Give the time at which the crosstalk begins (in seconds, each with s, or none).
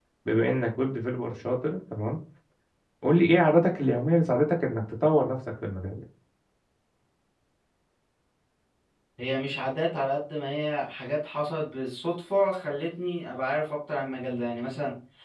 none